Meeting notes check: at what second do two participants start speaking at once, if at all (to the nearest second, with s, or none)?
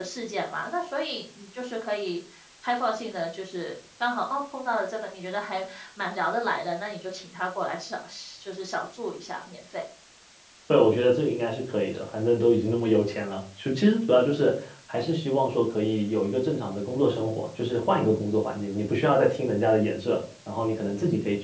none